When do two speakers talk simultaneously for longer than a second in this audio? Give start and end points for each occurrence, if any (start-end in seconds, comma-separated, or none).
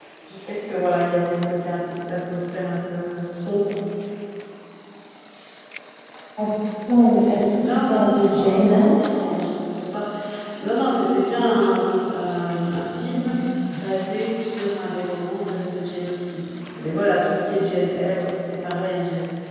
7.3-9.4